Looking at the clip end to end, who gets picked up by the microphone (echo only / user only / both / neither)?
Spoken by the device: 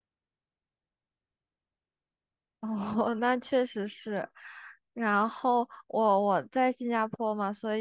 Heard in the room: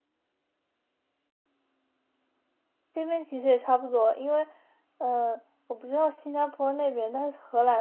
user only